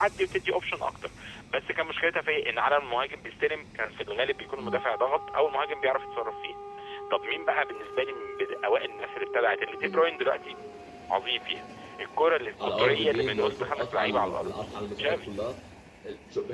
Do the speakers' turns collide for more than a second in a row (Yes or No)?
Yes